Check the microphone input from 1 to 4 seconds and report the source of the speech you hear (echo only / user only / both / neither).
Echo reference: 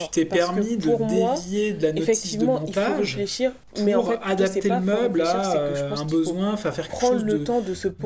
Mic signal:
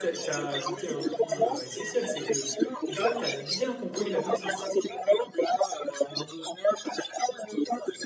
both